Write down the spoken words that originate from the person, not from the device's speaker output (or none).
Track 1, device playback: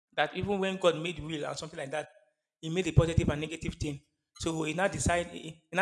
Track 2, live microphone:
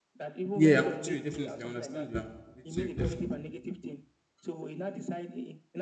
yeah, I'm with you, definitely. I understand you. I'm with you, definitely.